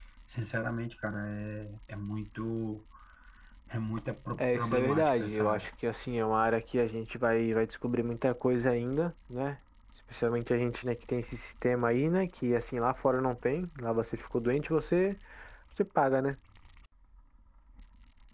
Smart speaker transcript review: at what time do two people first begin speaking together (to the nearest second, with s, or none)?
4 s